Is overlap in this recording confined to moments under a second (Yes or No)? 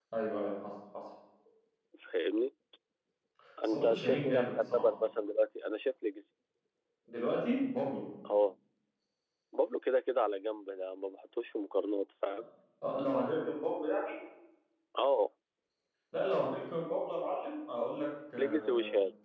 No